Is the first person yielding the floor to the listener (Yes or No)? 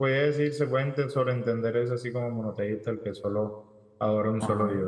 Yes